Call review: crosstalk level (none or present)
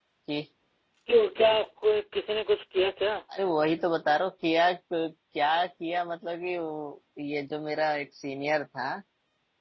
none